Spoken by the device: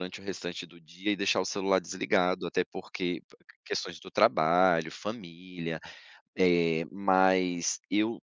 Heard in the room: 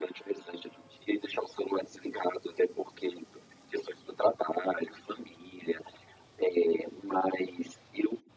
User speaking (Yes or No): No